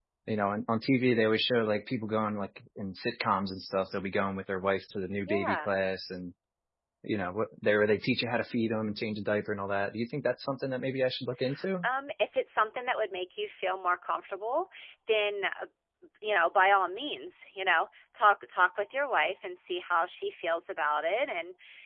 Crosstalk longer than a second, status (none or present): none